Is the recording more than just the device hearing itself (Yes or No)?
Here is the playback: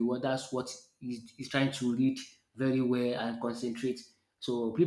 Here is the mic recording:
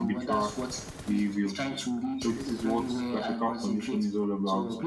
Yes